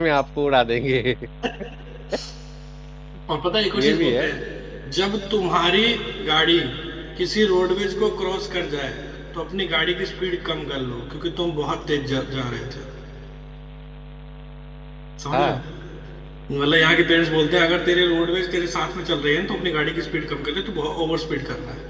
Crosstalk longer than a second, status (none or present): none